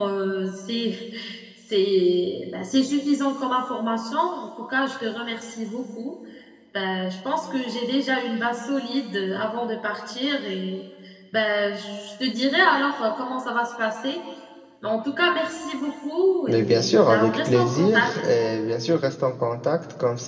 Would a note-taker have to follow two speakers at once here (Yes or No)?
Yes